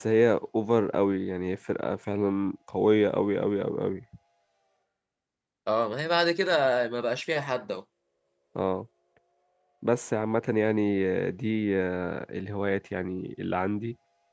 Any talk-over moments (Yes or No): No